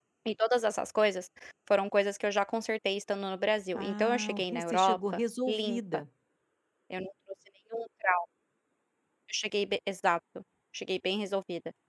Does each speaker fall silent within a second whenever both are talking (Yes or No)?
No